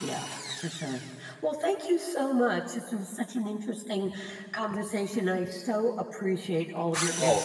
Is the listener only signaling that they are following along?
No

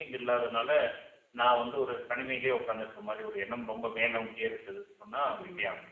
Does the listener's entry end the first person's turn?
Yes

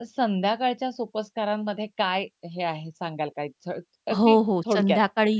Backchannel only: No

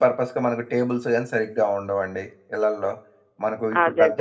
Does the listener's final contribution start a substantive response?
No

